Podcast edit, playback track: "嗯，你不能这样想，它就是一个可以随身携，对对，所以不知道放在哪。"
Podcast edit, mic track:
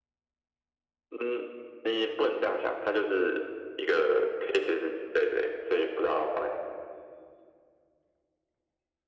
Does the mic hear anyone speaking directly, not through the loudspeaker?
No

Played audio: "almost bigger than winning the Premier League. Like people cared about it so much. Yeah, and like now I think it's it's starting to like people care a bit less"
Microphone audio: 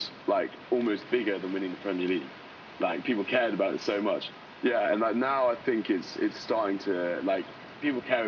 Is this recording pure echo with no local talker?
Yes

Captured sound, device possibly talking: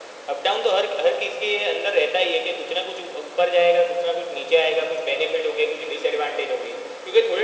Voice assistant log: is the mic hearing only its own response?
Yes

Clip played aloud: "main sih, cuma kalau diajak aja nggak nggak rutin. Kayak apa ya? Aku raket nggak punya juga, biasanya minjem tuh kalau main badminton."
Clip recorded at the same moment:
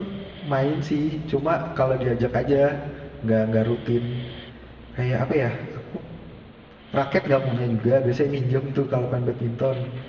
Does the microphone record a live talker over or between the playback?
No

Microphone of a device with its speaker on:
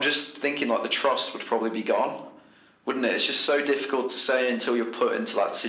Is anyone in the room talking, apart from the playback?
No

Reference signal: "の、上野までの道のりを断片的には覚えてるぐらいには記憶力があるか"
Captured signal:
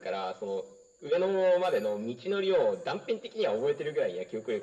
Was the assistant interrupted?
No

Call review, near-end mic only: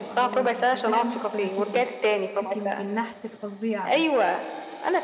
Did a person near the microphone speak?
Yes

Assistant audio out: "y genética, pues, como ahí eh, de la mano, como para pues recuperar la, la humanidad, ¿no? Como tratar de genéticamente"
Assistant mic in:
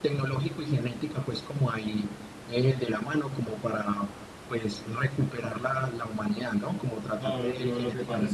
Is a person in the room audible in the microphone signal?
Yes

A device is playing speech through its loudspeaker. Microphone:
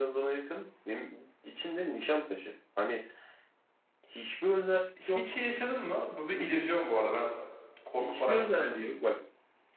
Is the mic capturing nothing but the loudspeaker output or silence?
No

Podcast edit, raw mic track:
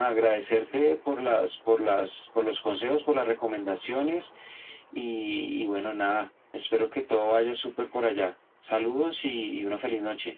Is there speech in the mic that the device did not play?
No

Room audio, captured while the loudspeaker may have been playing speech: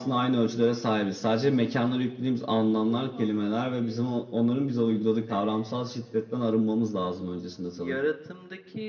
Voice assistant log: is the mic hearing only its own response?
Yes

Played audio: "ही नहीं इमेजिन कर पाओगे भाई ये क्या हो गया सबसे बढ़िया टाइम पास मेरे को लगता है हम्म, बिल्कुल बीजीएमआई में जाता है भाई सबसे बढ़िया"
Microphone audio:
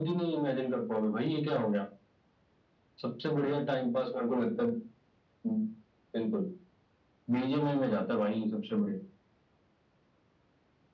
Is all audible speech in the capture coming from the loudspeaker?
Yes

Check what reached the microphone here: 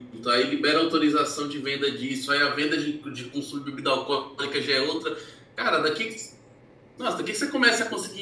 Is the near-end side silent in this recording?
Yes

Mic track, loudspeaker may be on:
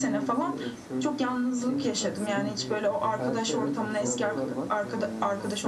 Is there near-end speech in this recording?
Yes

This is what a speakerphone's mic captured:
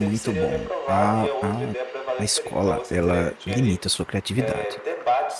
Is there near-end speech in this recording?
Yes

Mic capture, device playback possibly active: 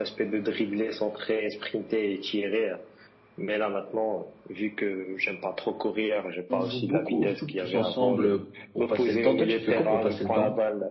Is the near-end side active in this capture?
Yes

